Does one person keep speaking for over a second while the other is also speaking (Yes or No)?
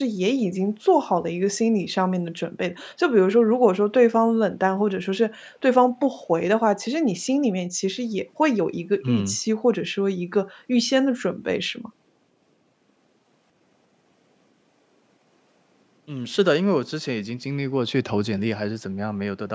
No